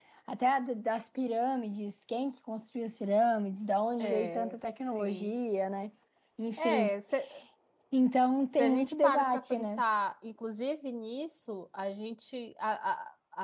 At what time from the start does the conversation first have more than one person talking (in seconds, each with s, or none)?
4.0 s